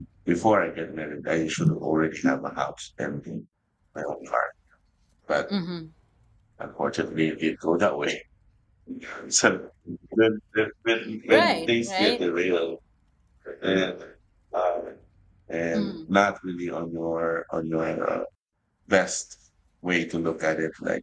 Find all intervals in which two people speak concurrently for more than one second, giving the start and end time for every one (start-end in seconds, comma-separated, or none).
11.0-12.3